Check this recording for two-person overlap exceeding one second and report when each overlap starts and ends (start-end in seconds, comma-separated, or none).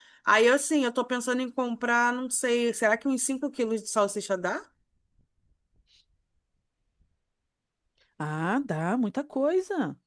none